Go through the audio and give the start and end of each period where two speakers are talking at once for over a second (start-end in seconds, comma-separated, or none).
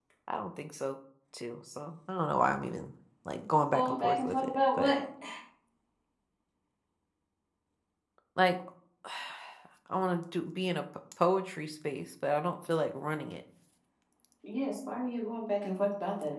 3.7-4.9